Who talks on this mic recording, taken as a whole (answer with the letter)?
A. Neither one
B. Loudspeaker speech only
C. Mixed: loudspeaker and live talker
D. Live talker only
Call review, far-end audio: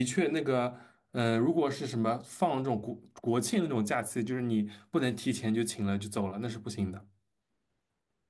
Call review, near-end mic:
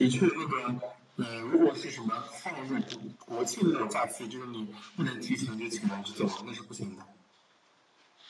B